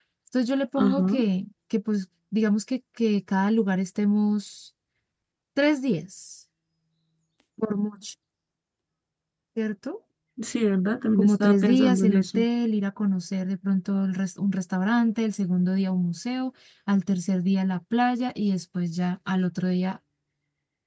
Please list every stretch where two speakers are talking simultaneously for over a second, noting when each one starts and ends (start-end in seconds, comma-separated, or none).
11.2-12.4